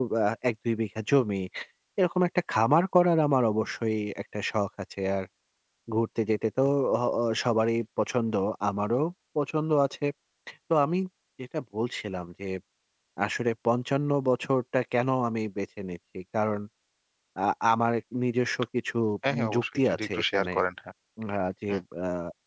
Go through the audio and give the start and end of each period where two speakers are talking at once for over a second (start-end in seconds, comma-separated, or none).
19.3-20.5